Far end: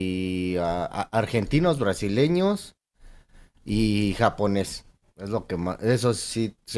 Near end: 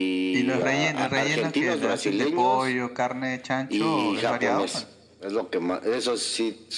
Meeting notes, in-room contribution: present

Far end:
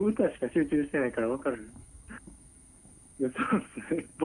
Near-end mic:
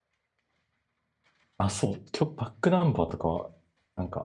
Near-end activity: present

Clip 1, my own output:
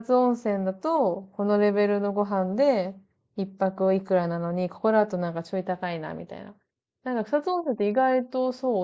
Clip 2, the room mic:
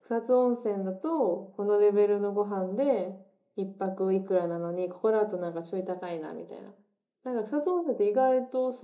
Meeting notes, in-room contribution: none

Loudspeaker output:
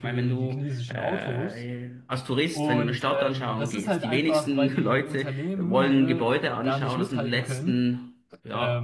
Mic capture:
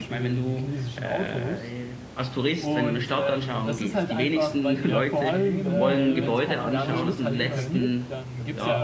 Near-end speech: present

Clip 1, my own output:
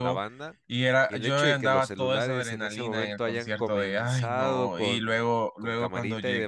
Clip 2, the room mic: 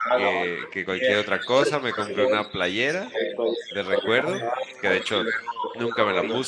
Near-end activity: present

